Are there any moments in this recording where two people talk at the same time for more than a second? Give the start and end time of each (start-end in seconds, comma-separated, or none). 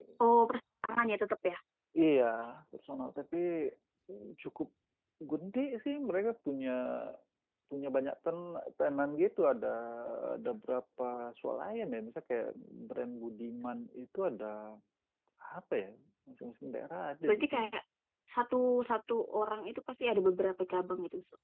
none